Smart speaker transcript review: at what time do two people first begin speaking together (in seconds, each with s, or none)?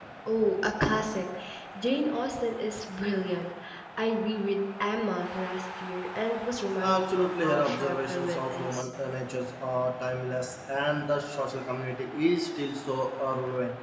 6.8 s